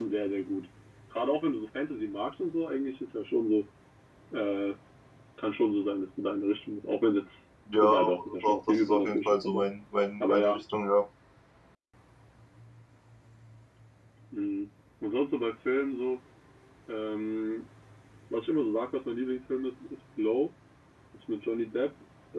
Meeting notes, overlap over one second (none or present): present